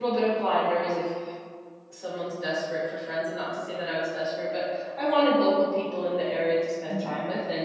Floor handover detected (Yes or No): No